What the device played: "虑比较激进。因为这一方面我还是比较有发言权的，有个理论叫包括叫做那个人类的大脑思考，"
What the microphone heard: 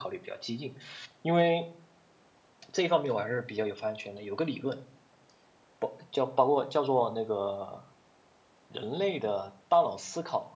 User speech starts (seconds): none

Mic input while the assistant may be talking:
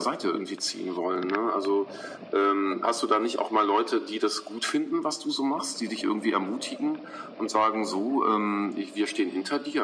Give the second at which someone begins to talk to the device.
none

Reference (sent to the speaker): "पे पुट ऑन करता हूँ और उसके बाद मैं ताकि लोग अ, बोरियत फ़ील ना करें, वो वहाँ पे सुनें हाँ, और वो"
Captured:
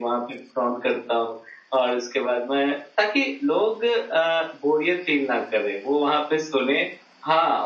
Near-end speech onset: none

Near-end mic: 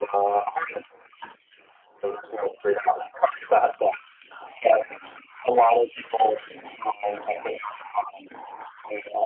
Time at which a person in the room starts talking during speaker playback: none

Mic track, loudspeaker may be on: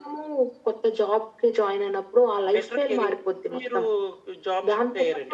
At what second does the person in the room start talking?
none

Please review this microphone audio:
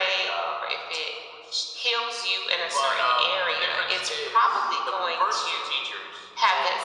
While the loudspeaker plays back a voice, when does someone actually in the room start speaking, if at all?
none

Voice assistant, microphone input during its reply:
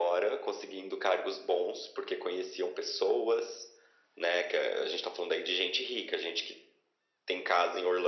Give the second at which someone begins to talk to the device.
none

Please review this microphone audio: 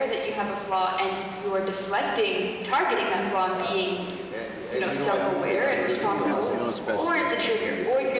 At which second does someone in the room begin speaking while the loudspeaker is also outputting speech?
4.8 s

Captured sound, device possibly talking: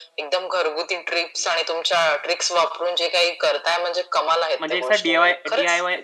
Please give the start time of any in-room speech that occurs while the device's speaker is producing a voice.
4.6 s

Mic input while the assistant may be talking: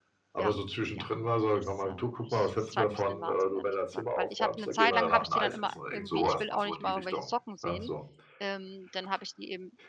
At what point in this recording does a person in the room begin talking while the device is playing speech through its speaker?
0.3 s

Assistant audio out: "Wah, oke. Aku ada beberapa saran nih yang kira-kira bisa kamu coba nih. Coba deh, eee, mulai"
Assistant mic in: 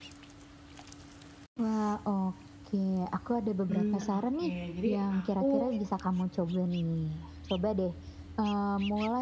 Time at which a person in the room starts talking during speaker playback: 3.7 s

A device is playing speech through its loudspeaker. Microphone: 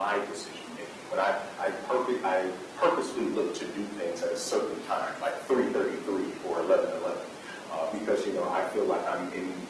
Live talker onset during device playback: none

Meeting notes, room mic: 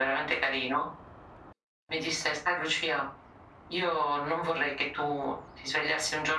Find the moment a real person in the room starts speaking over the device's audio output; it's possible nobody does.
none

